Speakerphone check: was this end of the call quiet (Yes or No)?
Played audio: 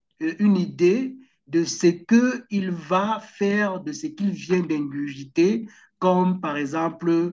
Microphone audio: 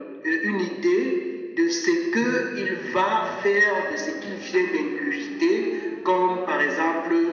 No